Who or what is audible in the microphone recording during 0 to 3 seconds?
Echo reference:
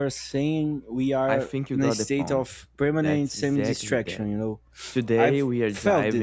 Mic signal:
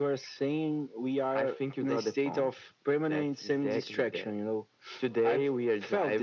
echo only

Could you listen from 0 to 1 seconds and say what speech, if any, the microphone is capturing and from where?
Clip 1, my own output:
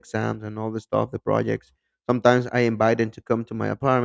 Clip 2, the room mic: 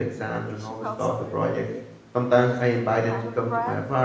both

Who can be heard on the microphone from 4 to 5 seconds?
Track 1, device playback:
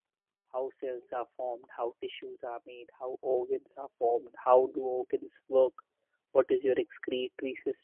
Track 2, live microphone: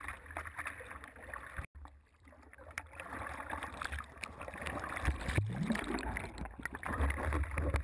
neither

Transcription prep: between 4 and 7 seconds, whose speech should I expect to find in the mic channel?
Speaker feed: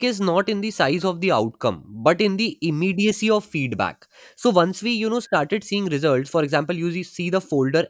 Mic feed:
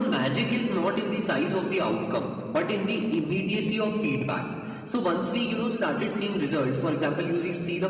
echo only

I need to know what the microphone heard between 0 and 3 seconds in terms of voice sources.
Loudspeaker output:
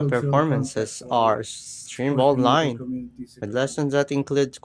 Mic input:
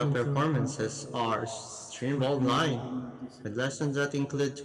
echo only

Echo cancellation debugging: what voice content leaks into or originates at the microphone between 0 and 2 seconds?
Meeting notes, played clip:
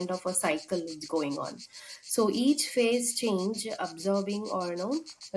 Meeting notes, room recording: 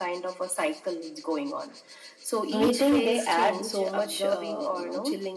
echo only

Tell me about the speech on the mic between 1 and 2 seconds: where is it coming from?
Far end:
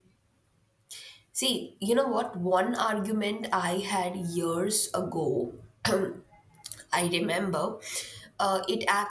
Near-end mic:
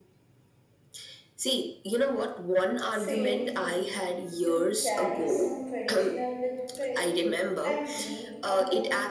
echo only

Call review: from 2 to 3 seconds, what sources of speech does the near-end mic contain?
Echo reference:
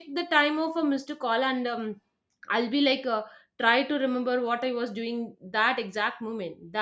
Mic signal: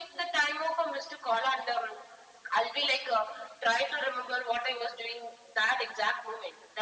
echo only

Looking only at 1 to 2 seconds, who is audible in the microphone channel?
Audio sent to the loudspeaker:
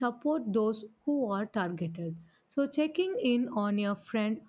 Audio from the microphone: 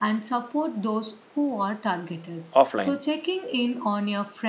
echo only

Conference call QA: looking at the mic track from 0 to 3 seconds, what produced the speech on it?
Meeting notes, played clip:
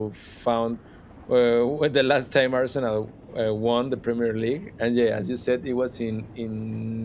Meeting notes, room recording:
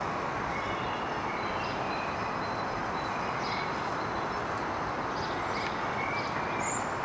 neither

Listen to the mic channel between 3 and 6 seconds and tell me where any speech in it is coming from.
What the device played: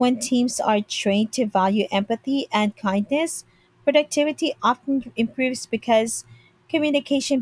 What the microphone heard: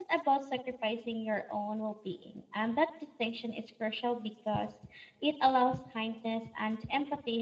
user only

